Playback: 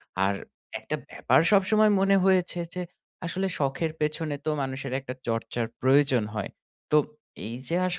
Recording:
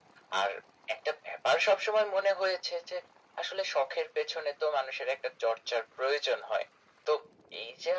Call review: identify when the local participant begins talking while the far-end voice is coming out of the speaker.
none

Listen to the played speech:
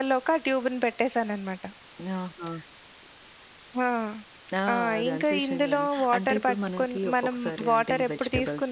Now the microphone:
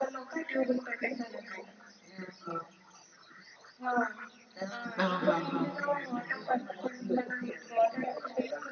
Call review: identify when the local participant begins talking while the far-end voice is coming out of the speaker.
5.0 s

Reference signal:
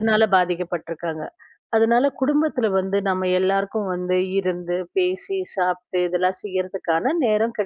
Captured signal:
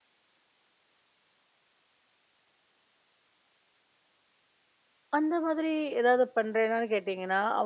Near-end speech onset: 5.2 s

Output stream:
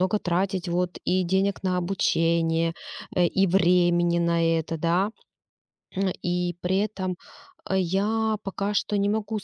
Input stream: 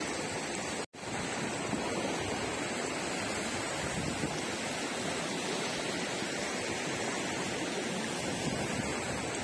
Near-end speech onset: none

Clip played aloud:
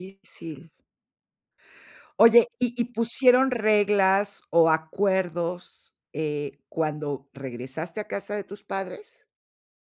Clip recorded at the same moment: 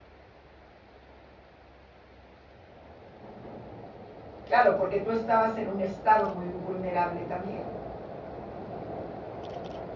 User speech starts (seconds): 4.4 s

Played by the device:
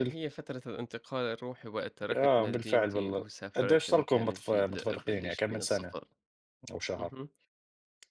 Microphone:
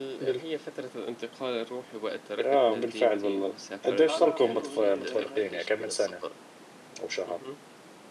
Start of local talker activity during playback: 4.1 s

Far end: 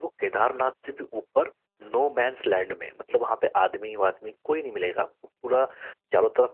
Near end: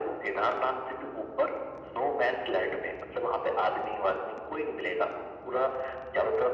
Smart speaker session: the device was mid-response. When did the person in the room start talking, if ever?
none

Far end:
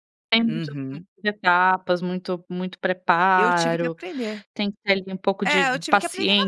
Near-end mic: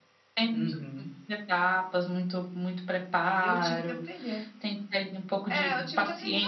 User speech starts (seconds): none

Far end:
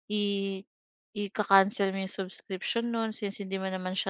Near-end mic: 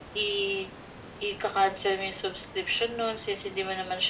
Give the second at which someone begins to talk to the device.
none

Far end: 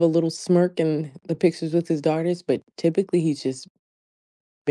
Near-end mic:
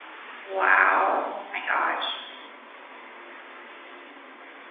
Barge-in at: 0.4 s

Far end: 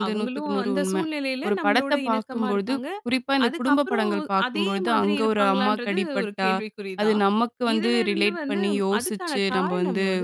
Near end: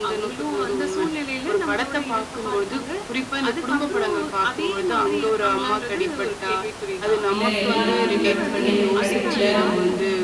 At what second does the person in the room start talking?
7.3 s

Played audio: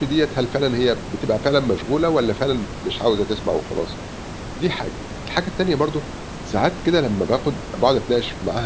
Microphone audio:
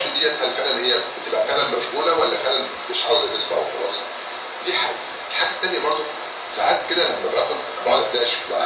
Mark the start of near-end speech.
none

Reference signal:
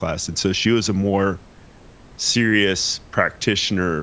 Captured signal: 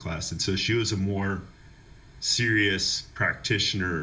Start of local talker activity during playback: none

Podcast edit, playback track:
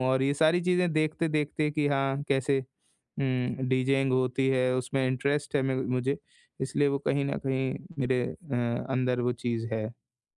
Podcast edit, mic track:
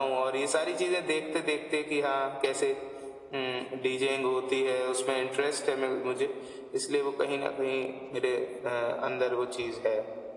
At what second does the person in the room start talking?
none

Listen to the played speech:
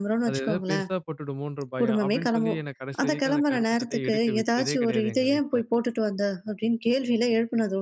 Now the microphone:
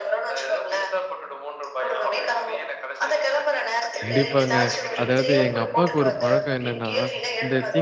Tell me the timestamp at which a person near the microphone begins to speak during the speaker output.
4.0 s

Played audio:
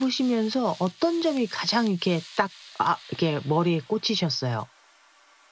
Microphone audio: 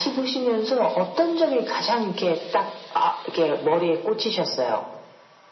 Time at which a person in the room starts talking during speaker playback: none

